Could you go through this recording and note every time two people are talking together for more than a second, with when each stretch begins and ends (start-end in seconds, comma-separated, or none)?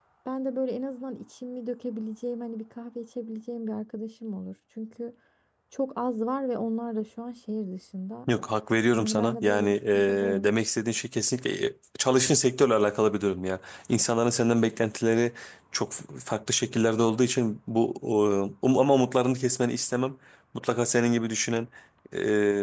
8.9-10.5